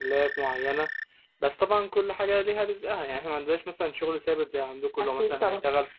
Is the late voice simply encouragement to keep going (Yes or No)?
Yes